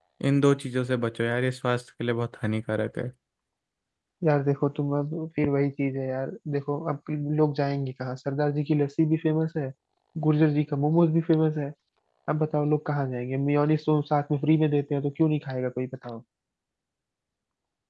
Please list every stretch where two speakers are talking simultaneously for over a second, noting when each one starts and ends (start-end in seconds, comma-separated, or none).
none